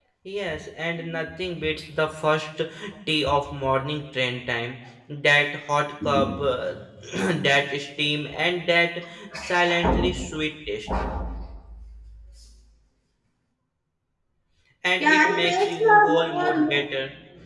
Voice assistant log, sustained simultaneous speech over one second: present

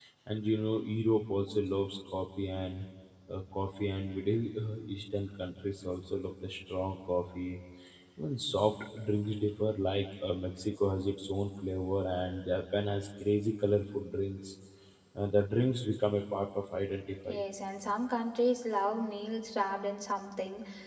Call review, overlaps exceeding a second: none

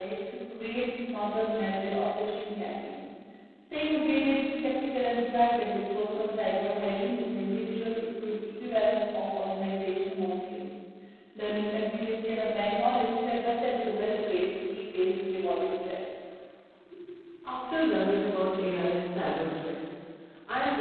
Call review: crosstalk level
none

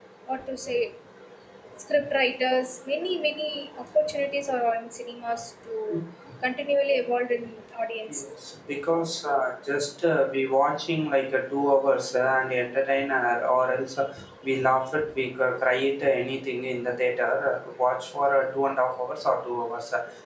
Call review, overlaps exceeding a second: none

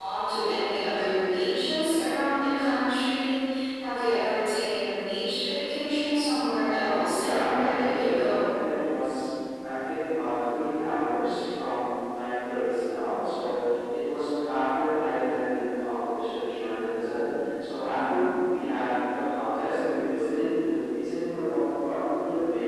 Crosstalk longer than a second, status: present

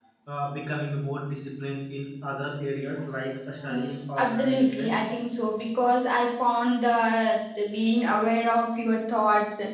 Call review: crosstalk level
present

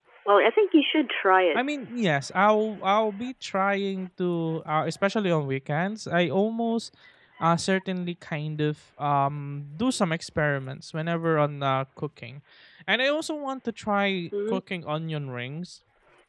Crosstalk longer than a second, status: none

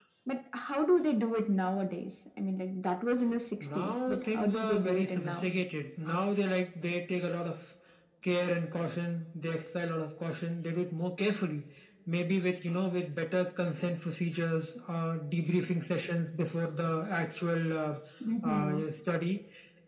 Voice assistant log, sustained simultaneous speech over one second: present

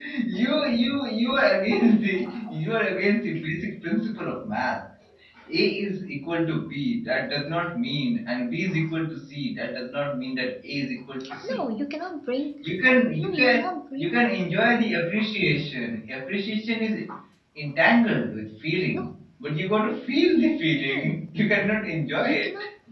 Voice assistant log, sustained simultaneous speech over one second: none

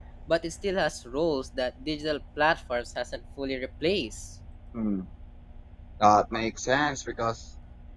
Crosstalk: none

